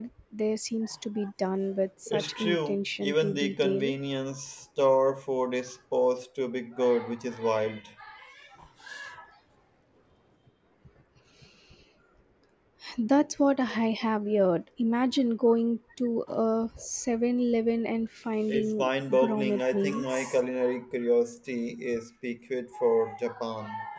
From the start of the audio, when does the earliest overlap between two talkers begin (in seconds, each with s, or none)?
2.1 s